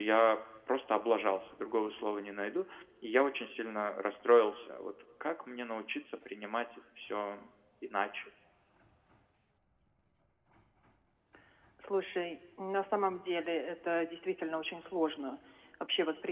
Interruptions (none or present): none